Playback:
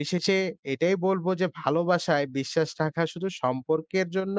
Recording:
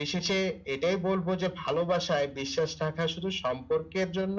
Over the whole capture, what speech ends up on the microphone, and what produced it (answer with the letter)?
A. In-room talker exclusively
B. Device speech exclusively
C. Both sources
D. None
B